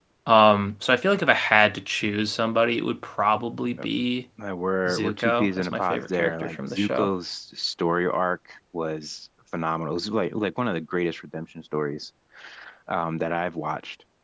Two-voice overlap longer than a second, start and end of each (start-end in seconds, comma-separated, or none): 4.9-7.1